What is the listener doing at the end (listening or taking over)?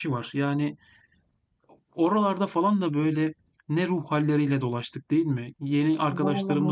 listening